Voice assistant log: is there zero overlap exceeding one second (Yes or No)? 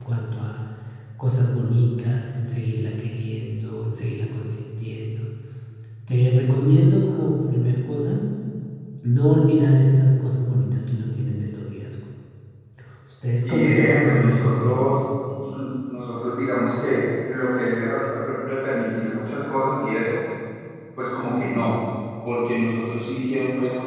No